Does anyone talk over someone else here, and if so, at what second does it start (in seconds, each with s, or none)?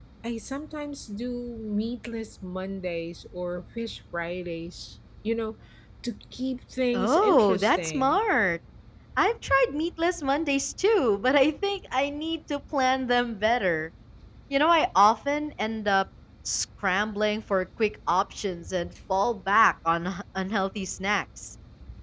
6.9 s